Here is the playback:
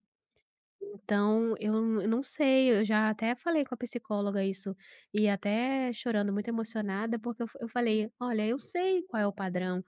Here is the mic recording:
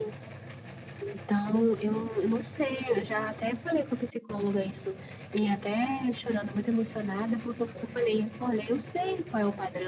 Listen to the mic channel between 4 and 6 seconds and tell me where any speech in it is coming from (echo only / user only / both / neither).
echo only